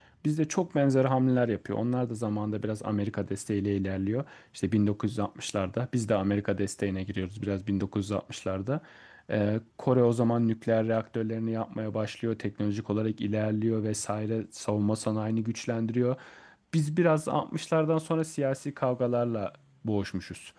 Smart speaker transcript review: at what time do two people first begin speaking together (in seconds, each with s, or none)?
none